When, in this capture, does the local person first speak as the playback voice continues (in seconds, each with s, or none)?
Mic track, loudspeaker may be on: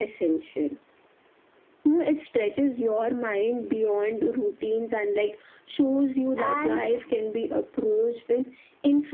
6.4 s